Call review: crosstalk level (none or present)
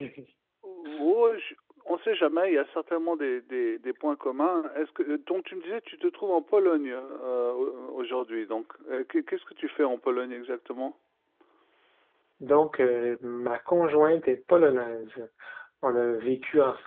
none